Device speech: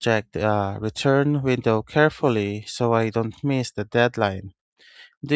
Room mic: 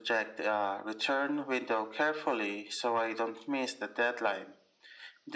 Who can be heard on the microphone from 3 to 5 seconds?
echo only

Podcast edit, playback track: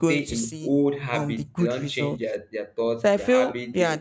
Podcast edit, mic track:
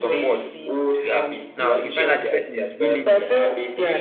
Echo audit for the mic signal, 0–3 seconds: both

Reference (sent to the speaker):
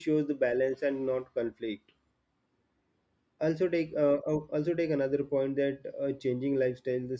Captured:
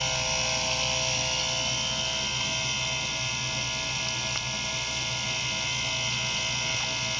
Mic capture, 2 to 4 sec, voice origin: neither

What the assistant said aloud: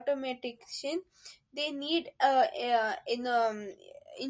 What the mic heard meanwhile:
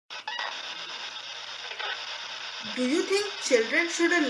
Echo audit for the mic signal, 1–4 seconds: user only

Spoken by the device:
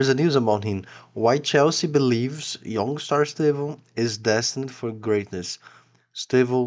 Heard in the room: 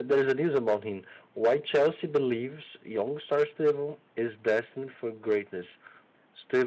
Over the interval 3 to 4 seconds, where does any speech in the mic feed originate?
echo only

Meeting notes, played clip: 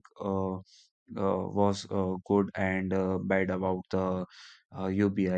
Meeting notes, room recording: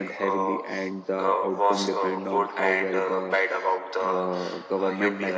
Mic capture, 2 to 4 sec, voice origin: both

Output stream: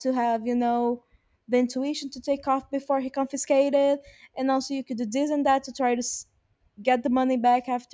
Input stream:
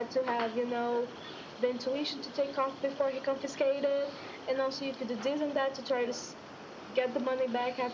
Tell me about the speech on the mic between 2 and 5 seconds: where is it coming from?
echo only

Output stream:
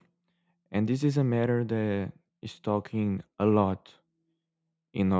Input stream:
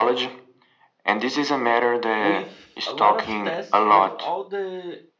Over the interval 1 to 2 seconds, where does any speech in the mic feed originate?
echo only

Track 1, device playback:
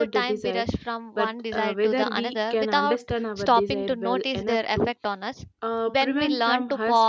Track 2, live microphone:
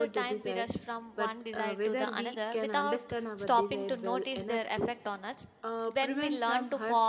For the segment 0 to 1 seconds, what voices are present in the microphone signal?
echo only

